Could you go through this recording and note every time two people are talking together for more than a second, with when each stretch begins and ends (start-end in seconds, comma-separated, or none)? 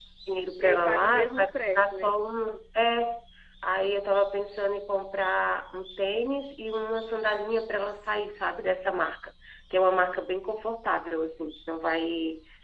0.6-2.1